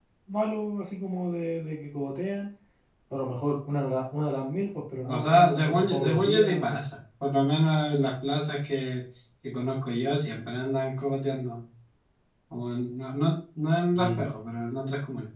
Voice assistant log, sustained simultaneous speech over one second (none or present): present